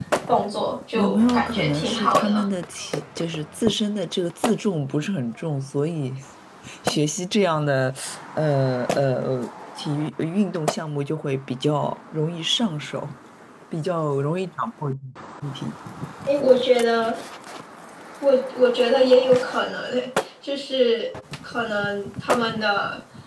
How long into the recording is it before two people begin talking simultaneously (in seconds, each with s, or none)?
1.0 s